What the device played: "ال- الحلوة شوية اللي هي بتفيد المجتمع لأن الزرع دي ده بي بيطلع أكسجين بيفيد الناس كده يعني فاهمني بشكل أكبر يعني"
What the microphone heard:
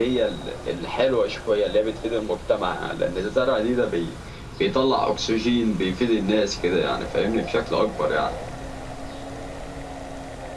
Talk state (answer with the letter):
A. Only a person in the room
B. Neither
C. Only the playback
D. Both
C